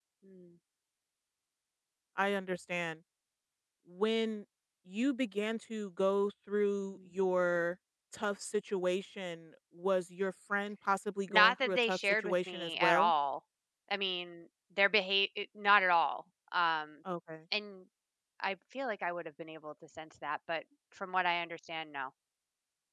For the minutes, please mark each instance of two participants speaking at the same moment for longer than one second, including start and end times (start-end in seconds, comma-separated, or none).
11.3-13.1